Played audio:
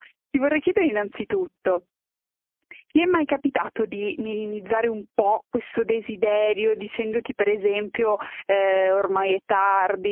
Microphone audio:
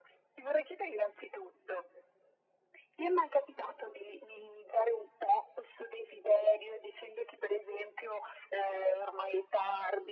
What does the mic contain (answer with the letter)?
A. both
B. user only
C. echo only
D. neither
C